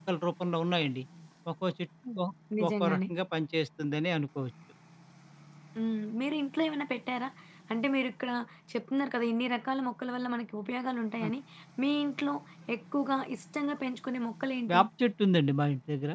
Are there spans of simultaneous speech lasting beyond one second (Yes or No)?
No